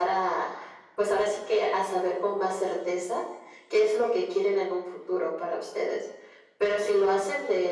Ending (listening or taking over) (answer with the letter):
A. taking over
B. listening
B